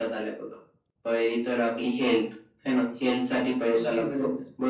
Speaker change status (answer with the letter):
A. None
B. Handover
A